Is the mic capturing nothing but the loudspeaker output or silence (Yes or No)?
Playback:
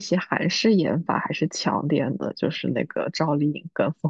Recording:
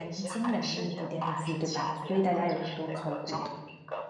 No